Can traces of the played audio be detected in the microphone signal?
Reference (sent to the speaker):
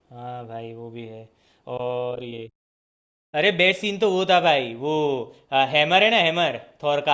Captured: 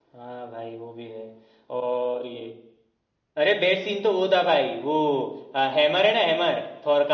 Yes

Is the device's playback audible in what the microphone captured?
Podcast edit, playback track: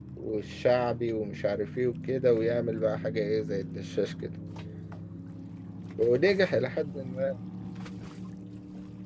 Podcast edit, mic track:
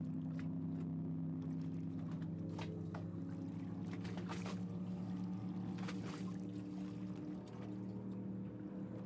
No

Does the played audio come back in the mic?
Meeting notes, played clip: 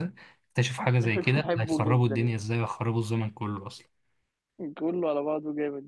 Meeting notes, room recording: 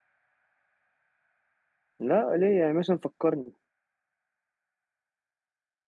No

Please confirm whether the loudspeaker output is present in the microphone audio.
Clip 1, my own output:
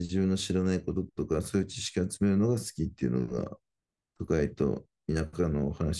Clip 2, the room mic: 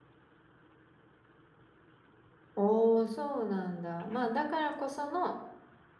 No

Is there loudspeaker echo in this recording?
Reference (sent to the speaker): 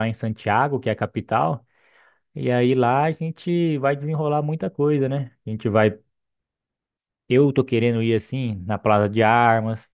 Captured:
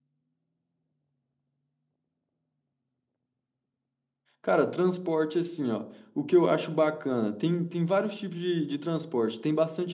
No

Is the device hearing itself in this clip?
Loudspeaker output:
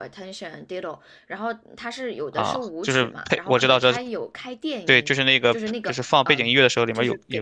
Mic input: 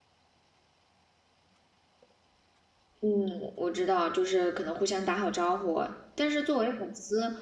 No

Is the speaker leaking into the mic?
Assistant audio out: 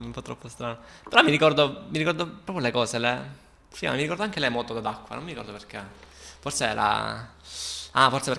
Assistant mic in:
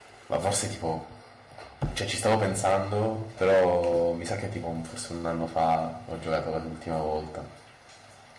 No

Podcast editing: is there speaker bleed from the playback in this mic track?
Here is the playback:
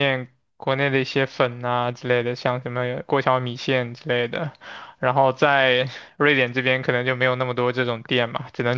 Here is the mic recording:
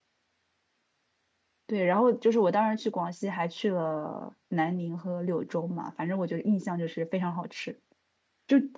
No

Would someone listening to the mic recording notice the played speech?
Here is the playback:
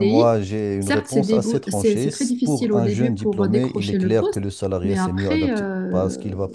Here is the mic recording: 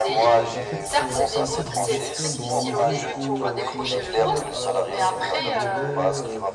Yes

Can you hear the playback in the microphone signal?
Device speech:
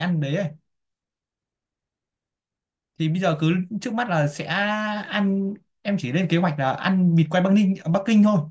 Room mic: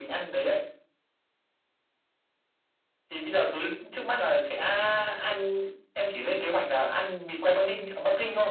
Yes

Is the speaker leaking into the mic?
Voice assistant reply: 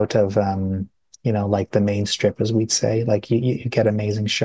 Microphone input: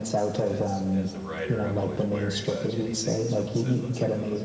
Yes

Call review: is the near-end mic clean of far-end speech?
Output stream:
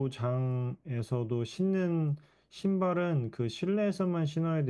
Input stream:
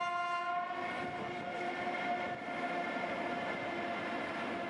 Yes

